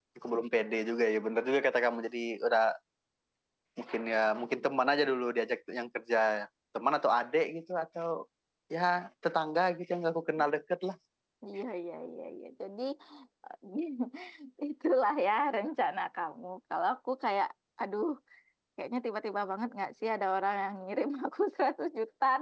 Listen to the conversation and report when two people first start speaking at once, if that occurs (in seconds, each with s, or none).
none